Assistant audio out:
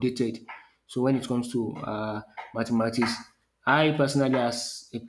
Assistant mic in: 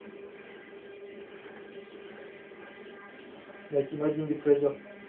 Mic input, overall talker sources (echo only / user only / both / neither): user only